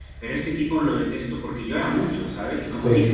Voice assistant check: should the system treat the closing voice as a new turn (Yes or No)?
No